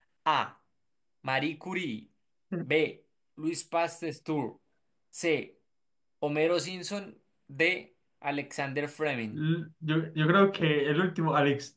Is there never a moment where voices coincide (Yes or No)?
Yes